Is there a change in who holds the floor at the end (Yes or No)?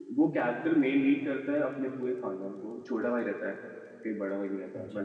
No